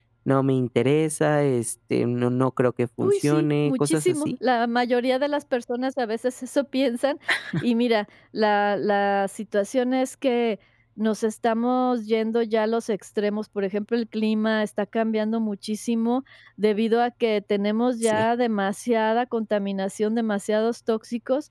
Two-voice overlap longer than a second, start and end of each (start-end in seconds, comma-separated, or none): 3.0-4.3